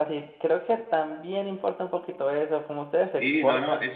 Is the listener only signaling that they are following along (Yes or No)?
No